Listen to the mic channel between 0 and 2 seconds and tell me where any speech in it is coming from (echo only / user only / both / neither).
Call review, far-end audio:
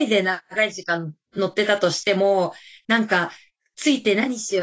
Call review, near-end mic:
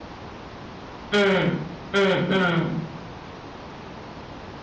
user only